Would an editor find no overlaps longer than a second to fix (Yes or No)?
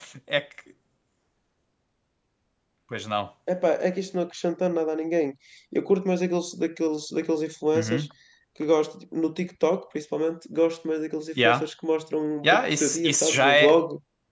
No